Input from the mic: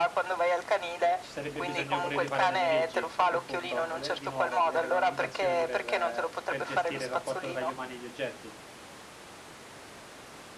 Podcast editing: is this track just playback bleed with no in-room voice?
No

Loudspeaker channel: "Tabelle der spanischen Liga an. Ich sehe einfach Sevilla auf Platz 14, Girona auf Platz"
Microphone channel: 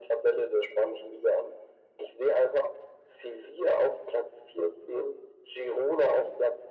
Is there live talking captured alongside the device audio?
No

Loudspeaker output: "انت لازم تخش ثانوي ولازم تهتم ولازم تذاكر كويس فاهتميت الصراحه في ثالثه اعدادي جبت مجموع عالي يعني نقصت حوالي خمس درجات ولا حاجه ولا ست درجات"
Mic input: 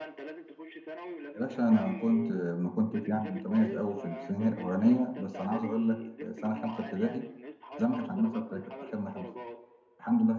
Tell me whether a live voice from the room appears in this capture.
Yes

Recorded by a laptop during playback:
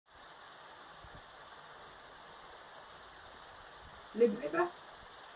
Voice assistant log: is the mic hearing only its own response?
No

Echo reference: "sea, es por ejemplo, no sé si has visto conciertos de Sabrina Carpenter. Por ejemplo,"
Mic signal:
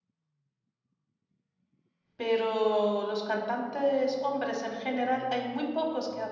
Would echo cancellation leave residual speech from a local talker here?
Yes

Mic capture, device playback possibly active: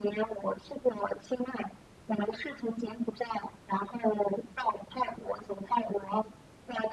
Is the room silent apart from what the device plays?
Yes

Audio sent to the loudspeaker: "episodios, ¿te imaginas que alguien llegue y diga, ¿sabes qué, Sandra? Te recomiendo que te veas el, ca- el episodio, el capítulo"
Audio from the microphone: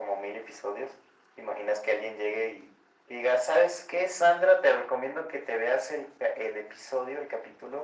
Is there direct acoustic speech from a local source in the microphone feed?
No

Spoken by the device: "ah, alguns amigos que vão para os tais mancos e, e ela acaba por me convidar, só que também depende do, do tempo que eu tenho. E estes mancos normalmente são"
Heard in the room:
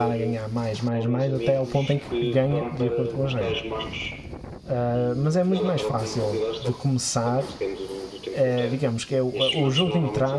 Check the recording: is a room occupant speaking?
Yes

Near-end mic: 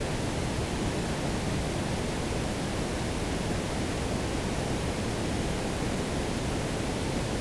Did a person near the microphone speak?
No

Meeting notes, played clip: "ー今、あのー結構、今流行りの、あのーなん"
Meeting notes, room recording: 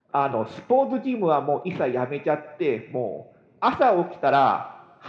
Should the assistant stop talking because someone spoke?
Yes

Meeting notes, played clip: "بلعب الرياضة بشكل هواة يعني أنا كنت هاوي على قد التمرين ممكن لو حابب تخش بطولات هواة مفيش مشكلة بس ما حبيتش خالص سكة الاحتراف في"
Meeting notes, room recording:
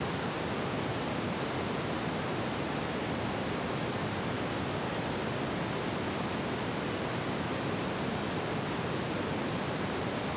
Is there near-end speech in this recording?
No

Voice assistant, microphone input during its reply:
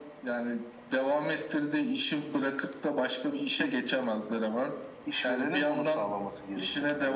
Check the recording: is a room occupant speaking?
No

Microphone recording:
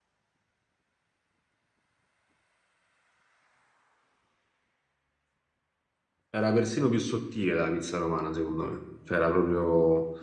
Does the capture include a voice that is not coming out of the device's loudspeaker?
Yes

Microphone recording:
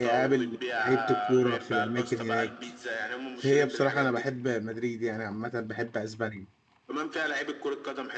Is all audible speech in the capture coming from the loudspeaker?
No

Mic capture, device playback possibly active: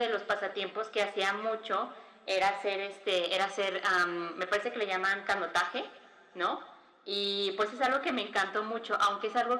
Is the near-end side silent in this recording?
Yes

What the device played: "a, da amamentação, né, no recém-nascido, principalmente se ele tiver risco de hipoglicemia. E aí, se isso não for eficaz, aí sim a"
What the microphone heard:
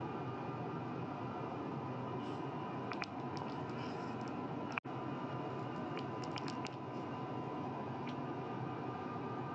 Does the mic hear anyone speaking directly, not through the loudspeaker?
No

